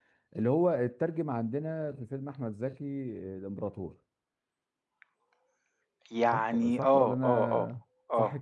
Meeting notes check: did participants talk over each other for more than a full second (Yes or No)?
Yes